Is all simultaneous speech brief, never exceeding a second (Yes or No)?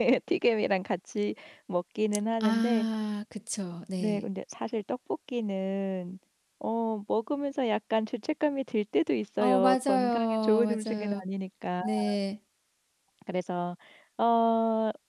No